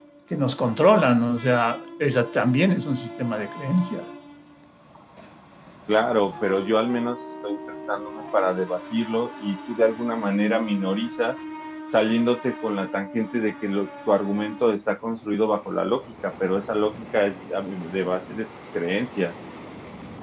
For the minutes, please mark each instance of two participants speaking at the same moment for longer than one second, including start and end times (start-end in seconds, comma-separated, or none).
none